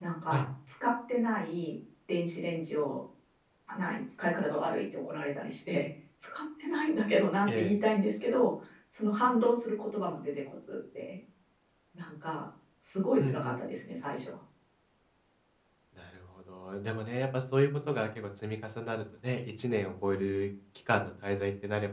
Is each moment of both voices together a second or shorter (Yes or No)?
Yes